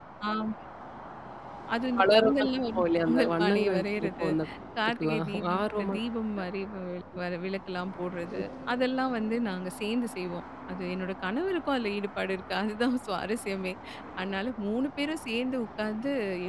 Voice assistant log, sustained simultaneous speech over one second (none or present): present